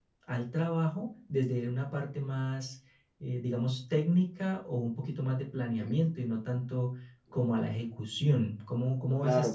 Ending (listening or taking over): taking over